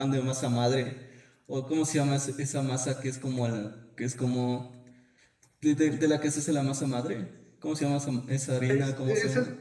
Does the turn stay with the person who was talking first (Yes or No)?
No